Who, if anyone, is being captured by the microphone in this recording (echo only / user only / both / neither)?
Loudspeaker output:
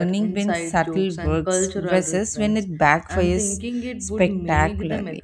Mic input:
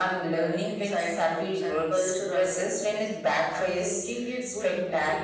echo only